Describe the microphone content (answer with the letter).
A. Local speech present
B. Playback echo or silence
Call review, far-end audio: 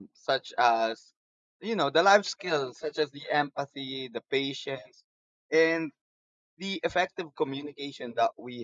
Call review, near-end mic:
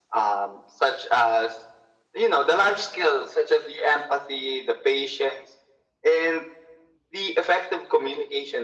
B